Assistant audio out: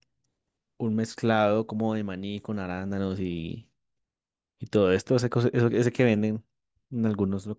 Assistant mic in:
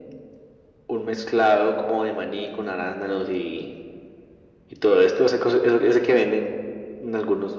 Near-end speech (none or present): none